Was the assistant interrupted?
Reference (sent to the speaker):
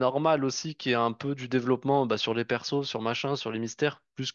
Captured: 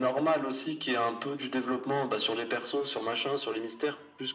No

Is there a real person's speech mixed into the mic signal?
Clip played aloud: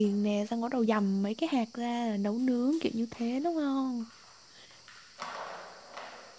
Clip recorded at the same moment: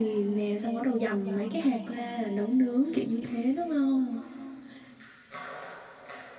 No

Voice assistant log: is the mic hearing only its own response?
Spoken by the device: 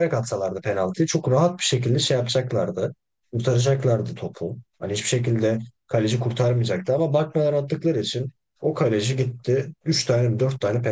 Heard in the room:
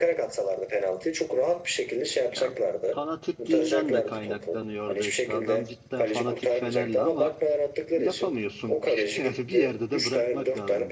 No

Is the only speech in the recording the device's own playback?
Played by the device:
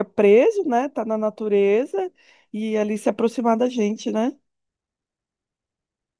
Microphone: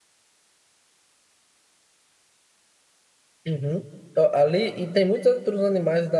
No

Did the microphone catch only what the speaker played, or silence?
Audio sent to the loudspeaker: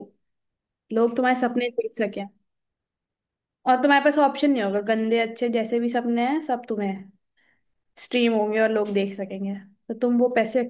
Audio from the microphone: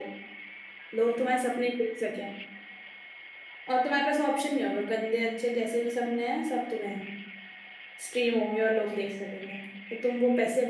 Yes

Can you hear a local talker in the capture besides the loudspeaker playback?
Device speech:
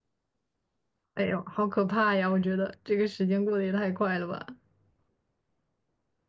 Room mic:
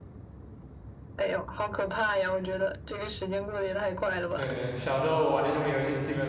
Yes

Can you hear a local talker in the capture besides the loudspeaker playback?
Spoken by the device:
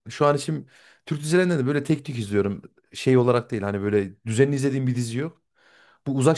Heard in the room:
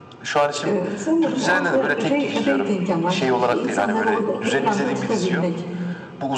Yes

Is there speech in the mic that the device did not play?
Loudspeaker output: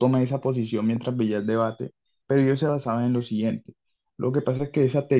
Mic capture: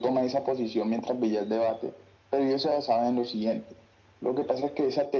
No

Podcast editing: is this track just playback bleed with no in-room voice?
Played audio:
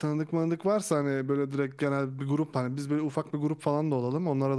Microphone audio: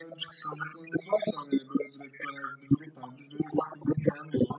Yes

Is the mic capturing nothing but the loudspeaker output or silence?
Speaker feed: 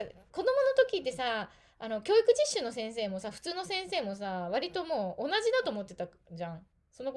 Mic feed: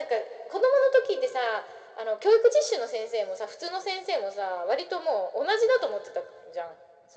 Yes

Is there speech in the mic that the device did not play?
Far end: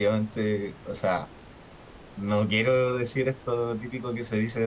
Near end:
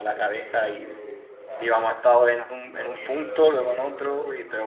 Yes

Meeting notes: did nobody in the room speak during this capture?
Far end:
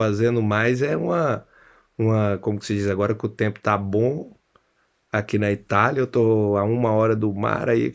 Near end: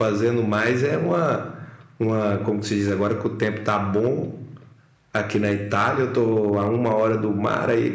Yes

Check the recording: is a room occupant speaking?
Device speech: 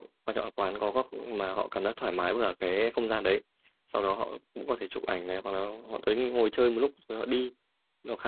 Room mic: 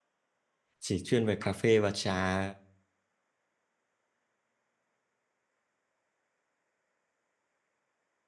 Yes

